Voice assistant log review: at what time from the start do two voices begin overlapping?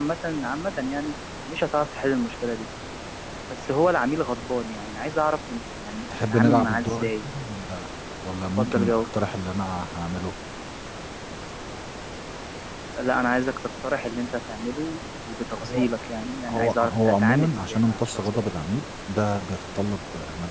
6 s

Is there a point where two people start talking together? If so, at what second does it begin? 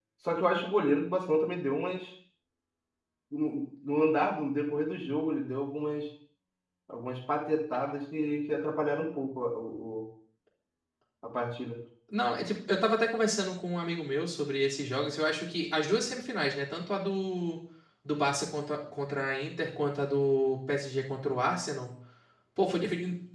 none

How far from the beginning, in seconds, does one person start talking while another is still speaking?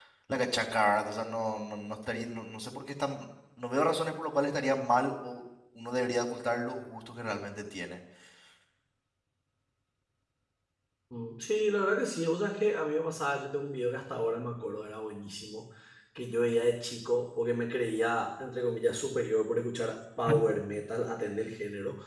none

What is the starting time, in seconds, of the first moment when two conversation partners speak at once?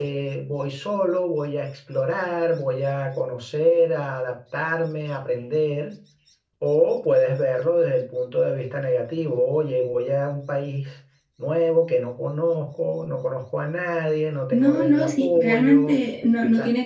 15 s

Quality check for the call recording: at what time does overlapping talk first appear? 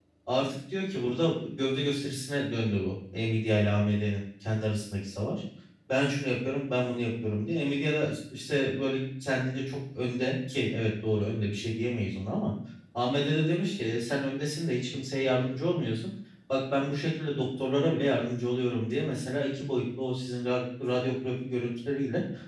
none

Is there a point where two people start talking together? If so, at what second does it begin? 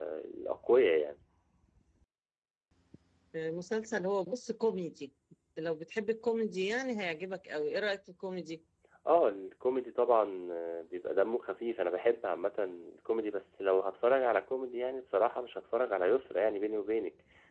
none

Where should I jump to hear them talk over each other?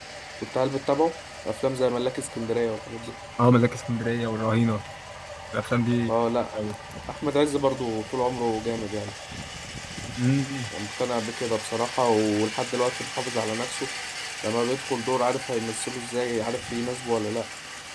none

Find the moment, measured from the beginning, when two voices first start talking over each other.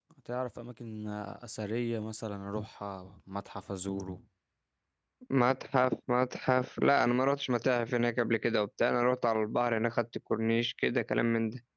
none

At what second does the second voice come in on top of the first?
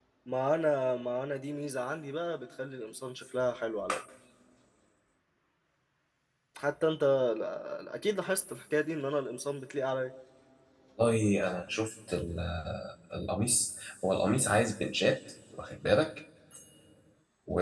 none

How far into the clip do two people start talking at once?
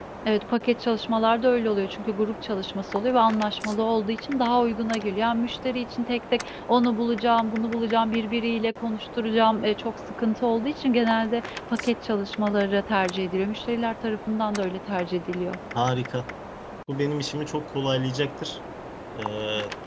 none

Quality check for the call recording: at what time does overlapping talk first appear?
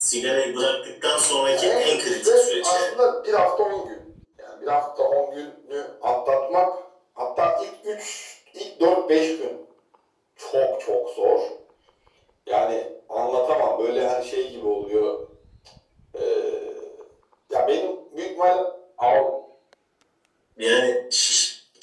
2 s

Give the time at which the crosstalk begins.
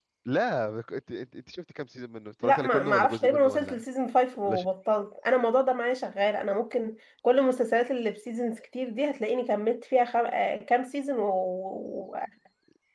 2 s

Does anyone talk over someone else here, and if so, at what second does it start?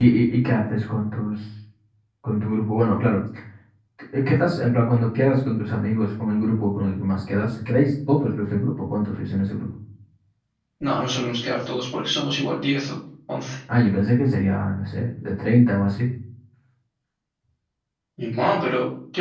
none

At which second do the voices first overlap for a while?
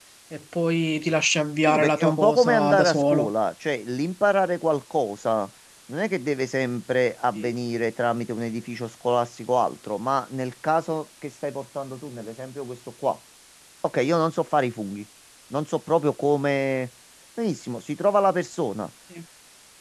2 s

